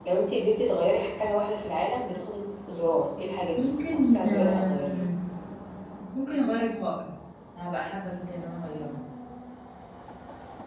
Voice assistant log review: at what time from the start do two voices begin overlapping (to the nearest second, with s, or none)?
4 s